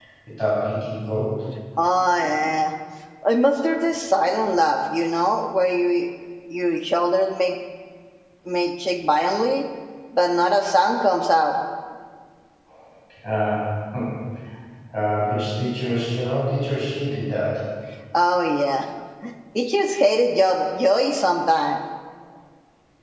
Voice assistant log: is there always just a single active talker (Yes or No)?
Yes